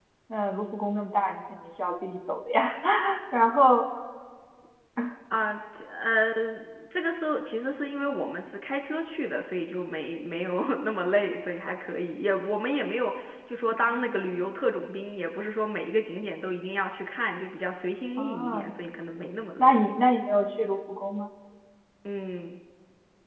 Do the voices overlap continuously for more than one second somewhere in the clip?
No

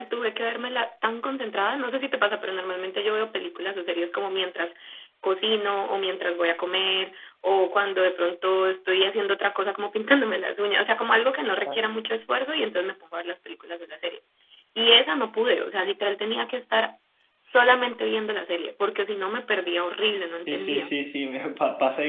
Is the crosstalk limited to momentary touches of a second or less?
Yes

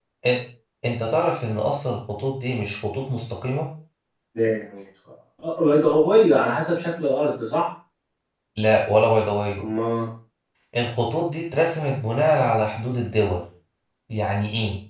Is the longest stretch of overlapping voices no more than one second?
Yes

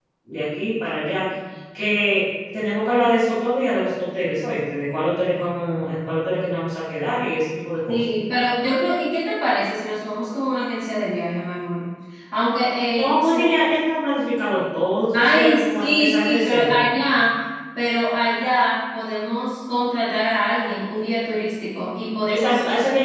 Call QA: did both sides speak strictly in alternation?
No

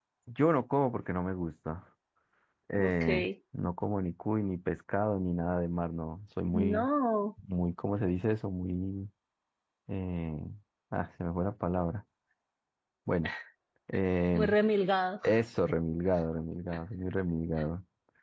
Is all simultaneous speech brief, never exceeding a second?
Yes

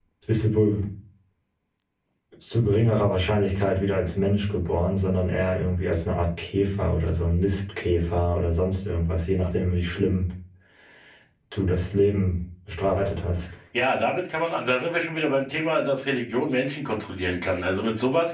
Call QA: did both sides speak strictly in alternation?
Yes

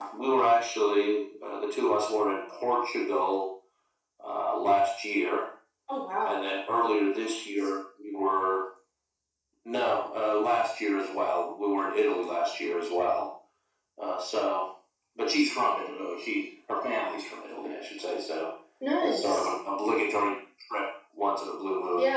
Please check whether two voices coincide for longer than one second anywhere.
No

